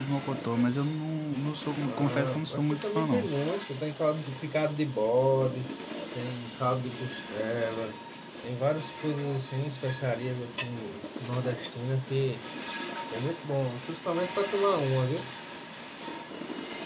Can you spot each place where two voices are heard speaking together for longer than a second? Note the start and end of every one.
1.9-3.3

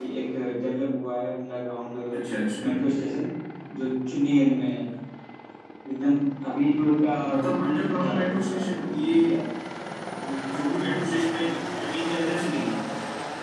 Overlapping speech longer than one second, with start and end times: 7.9-9.1

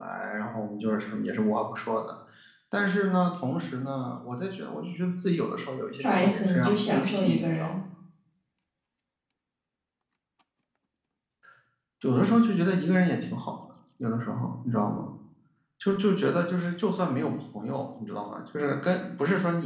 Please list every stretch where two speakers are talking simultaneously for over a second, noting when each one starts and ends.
6.0-7.7

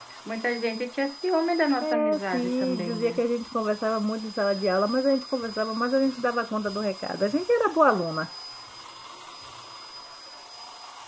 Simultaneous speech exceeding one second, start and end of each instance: 1.8-3.2

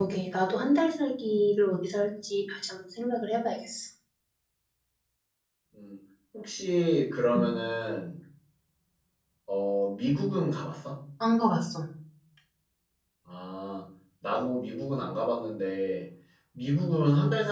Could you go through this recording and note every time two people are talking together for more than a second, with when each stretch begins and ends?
none

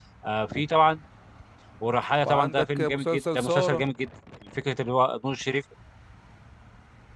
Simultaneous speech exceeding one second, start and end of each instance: 2.2-3.8

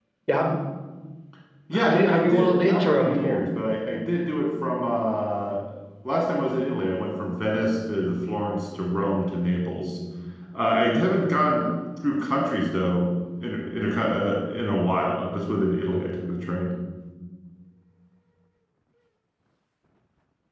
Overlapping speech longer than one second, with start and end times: 1.8-3.4

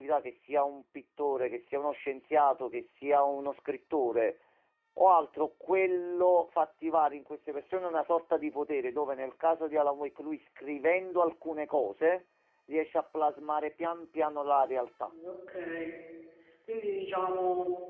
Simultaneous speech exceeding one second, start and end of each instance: none

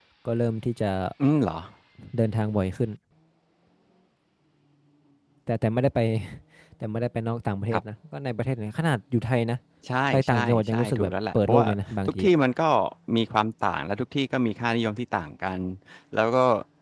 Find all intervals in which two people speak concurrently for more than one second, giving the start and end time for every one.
10.1-11.7

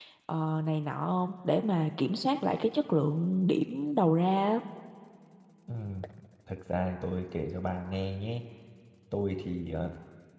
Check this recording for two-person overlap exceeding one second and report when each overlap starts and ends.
none

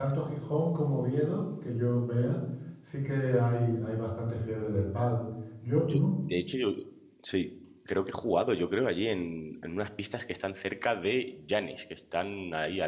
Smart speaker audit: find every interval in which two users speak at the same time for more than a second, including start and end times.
none

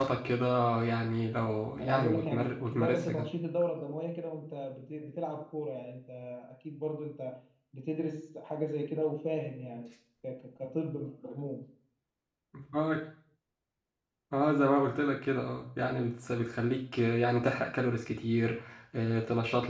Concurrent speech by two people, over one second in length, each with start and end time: 1.8-3.3

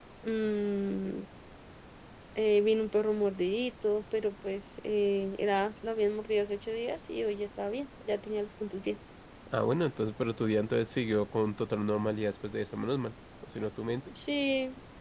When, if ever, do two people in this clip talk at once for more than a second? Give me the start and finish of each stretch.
none

